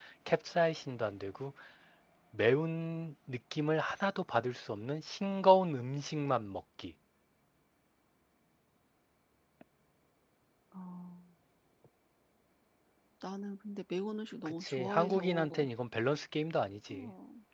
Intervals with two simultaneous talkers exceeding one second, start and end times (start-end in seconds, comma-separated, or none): 14.5-15.7